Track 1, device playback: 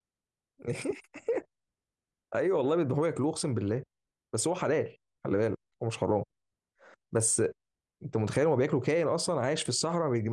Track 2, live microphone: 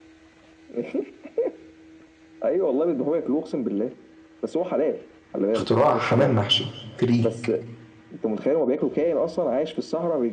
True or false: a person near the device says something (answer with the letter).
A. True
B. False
A